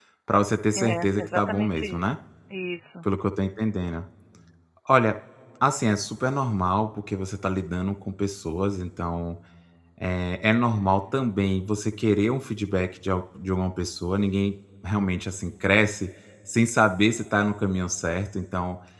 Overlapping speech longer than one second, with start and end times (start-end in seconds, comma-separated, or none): 0.8-2.0